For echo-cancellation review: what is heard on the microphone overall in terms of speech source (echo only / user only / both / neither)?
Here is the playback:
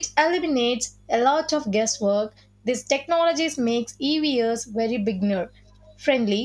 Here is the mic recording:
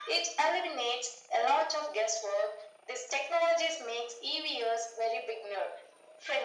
echo only